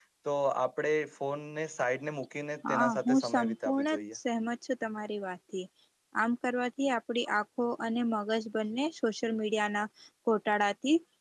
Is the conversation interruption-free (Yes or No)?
No